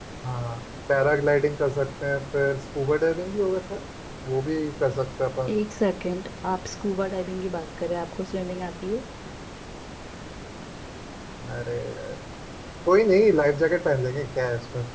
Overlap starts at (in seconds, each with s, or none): none